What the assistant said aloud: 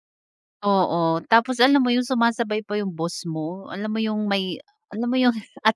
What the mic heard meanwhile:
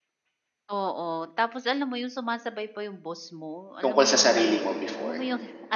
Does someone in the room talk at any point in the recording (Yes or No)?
Yes